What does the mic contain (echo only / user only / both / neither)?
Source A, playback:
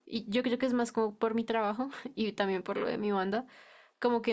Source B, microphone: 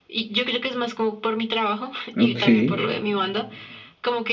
both